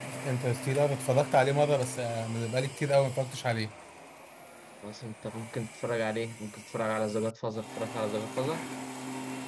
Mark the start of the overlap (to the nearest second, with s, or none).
none